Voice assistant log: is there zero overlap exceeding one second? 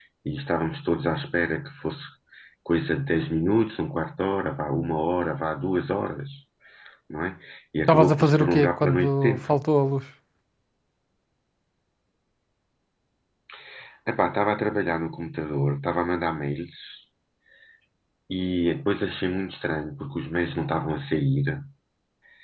No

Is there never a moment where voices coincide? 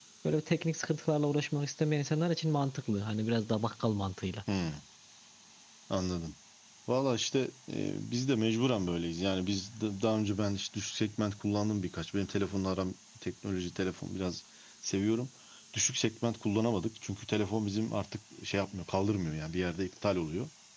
Yes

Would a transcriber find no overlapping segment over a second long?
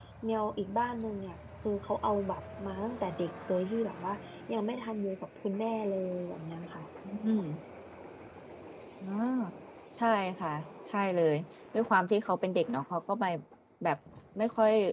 Yes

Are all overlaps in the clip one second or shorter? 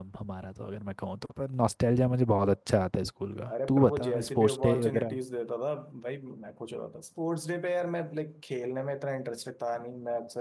No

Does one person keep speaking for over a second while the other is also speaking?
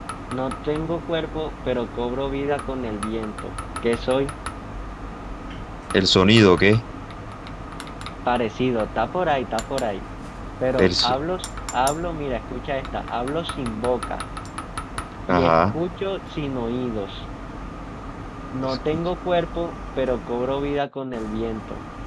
No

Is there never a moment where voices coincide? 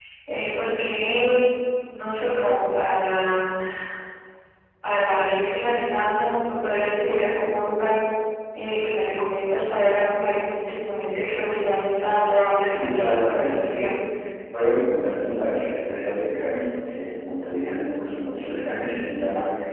No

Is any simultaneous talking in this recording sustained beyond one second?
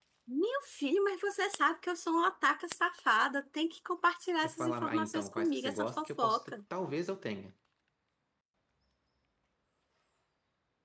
Yes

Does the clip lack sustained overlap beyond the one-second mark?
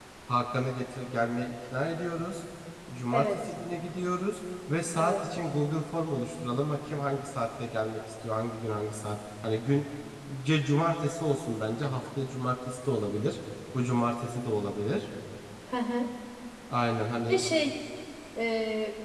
Yes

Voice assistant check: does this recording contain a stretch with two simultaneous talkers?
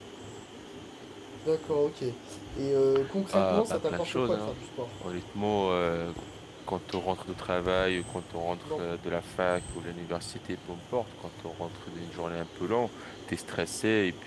Yes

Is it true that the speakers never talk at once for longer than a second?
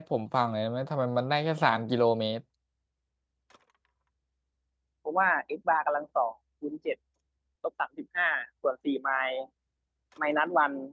Yes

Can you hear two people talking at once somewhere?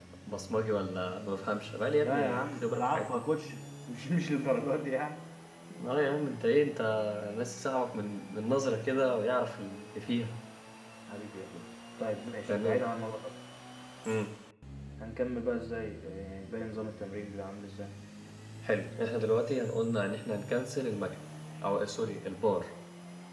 Yes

